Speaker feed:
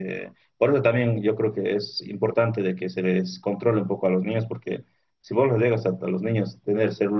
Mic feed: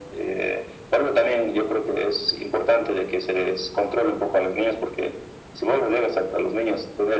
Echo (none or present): present